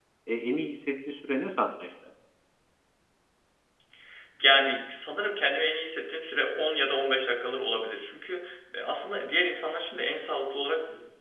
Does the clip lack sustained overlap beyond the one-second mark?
Yes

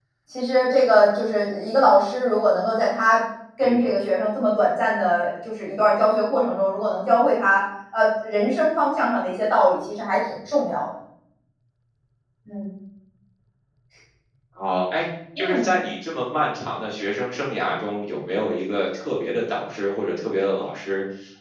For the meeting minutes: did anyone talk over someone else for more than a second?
No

